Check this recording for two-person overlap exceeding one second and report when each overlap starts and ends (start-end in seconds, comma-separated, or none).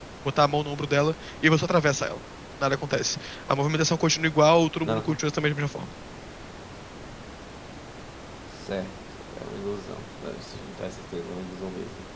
none